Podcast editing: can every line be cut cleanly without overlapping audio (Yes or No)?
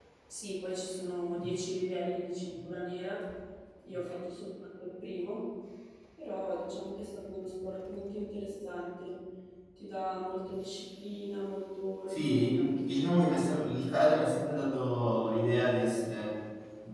No